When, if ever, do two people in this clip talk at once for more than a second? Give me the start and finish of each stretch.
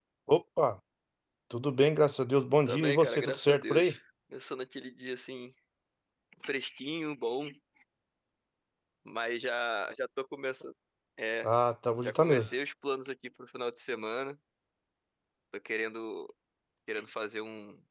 2.7-4.0

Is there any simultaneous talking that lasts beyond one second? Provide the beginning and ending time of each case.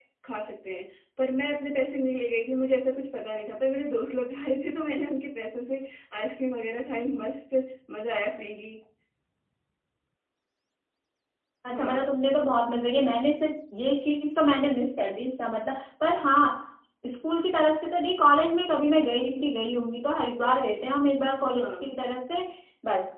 none

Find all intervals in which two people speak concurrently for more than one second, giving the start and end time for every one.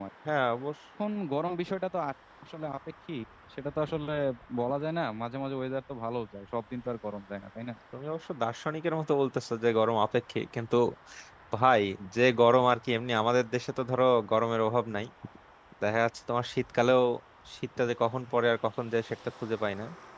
none

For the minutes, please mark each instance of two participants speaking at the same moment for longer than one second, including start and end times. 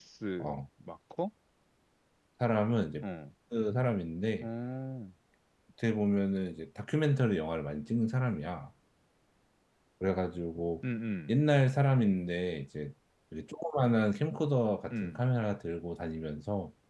none

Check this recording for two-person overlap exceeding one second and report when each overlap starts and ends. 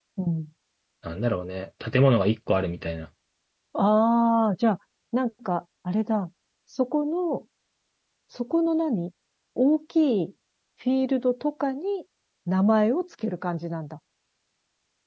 none

